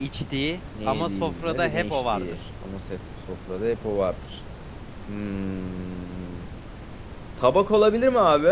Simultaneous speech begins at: 0.8 s

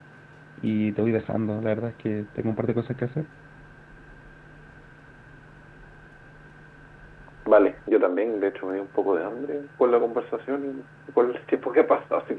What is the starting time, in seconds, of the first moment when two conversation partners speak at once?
none

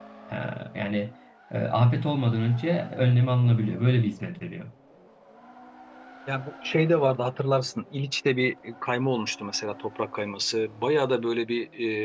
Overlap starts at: none

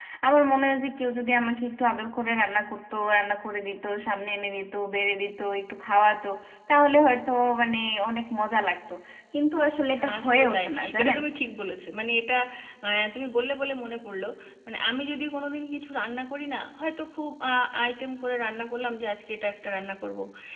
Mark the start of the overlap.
10.0 s

